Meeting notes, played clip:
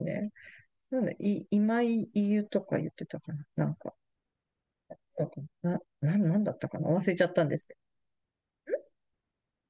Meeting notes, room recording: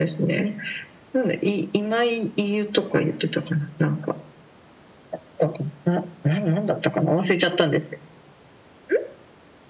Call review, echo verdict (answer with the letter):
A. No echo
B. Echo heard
B